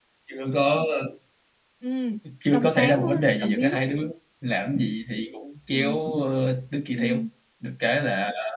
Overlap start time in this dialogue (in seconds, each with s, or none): 2.5 s